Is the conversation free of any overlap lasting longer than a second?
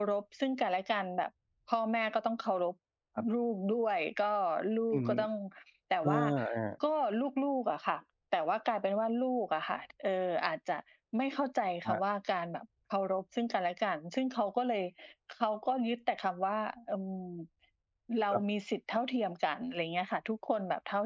Yes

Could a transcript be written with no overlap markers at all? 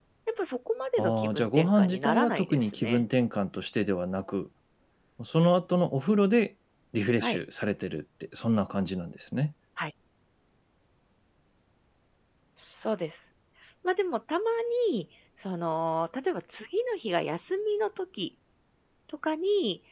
No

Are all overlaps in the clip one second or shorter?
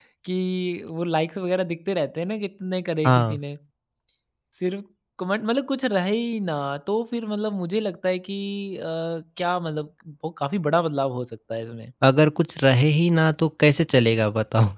Yes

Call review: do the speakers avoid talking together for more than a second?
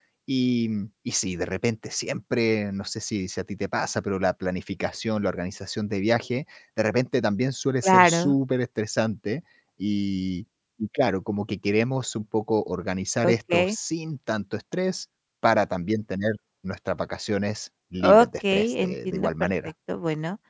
No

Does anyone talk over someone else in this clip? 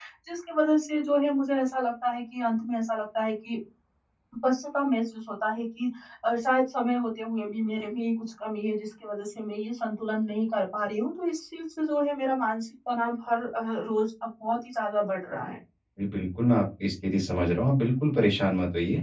No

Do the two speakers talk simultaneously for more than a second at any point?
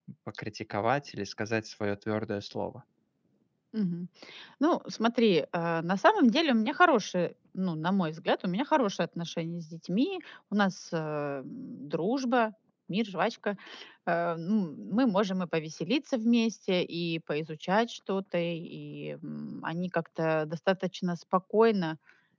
No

